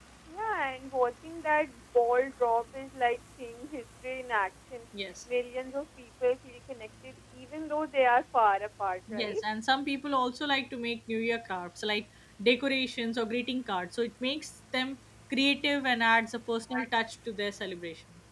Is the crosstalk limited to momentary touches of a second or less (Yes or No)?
Yes